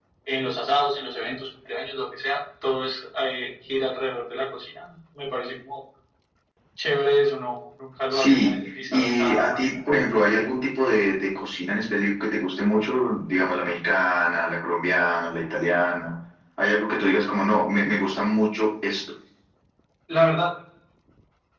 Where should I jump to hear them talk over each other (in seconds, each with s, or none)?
8.1 s